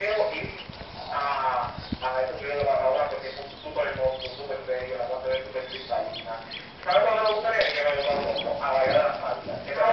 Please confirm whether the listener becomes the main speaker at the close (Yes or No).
Yes